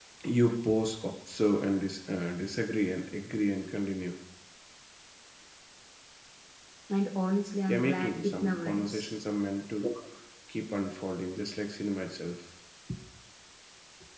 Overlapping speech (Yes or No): Yes